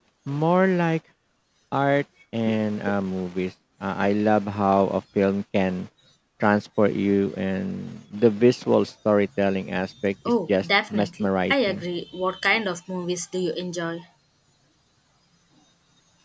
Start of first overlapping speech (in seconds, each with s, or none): 10.5 s